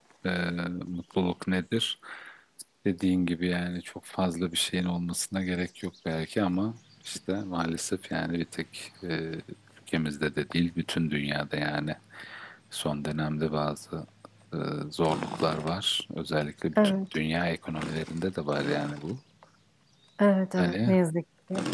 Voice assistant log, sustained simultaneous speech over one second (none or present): none